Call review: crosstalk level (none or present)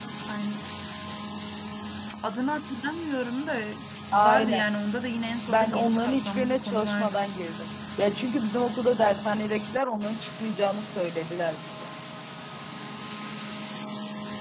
present